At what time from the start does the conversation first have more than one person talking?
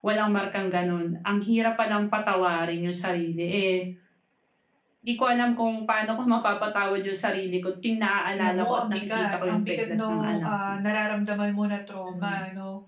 8 s

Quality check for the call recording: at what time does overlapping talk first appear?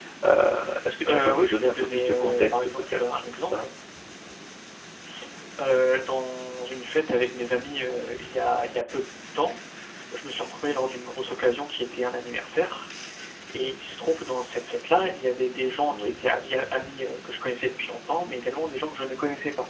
1 s

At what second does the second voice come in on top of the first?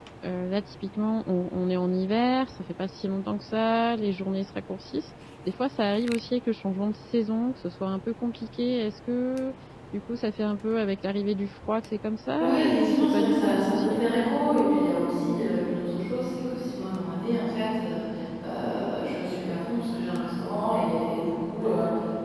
12 s

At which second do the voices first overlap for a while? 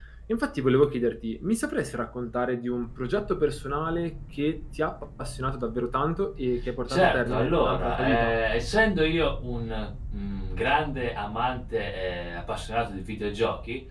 7 s

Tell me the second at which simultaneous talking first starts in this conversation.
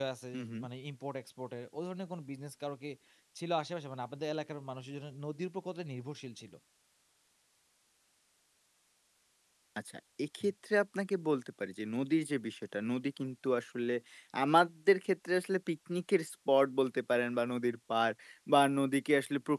none

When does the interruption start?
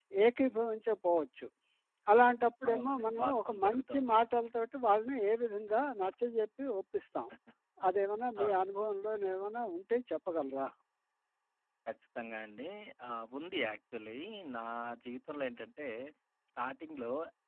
3 s

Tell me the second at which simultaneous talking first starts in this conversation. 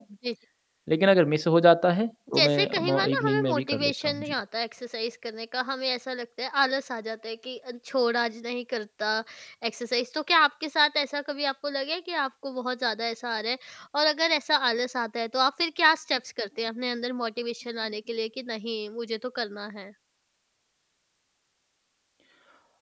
2 s

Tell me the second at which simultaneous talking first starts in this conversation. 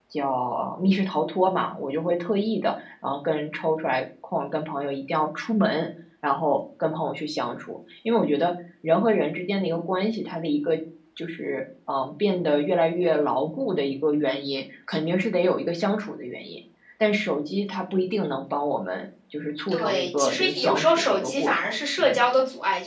20 s

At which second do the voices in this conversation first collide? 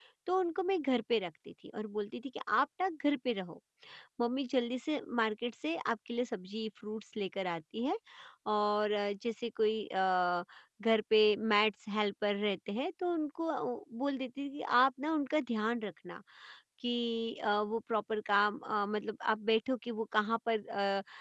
none

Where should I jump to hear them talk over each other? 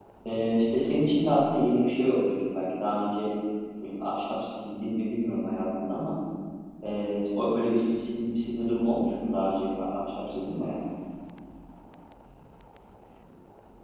none

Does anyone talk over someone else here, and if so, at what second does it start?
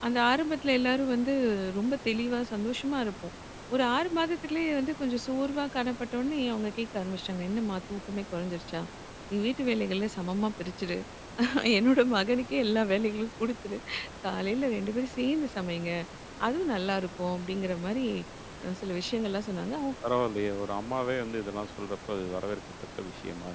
none

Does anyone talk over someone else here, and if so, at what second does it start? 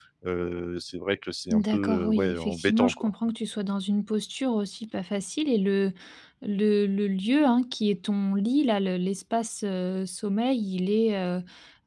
2 s

